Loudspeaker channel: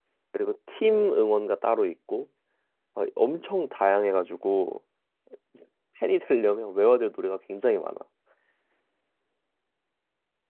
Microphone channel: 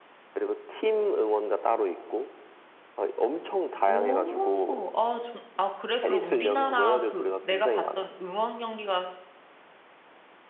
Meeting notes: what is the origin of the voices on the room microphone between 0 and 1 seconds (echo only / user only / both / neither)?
echo only